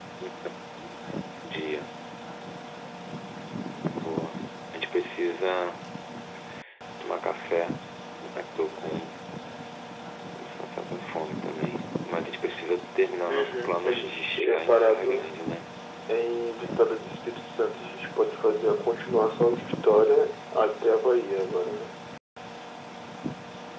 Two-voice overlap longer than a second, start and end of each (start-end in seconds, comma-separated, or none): 13.3-15.3